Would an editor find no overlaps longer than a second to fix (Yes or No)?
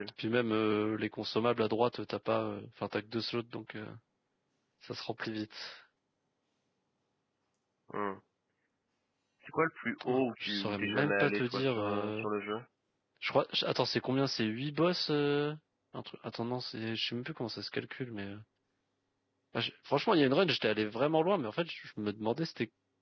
No